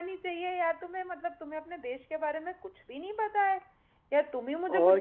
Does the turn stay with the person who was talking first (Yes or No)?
Yes